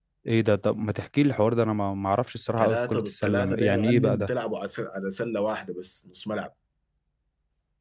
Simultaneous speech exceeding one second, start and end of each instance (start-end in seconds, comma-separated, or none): 2.6-4.3